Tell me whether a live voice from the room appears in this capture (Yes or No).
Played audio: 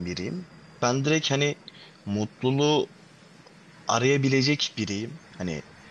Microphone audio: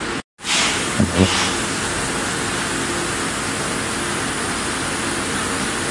Yes